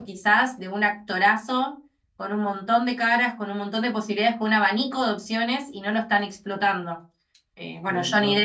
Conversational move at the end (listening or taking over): listening